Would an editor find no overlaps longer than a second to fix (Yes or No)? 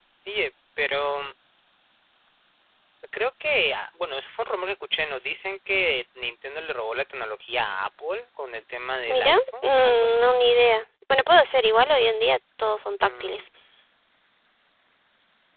No